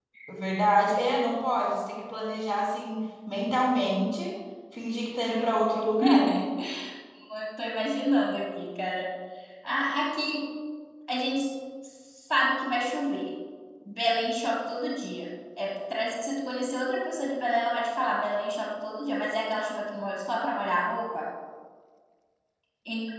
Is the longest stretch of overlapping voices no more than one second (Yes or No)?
Yes